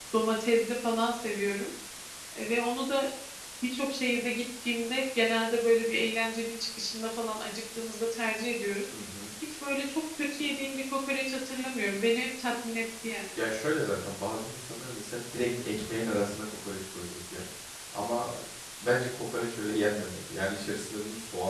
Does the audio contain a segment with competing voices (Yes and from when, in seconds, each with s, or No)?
No